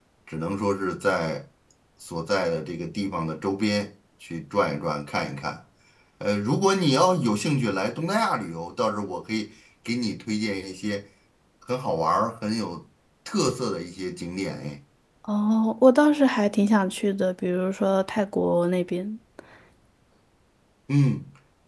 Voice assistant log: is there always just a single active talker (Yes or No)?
Yes